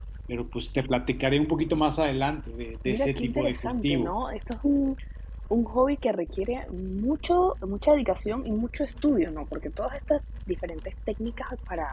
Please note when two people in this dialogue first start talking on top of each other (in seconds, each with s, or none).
2.9 s